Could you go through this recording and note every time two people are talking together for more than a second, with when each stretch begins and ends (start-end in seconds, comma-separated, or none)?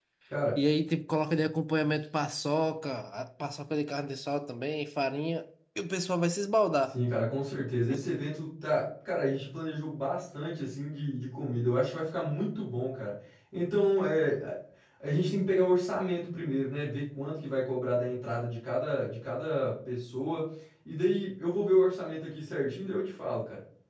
none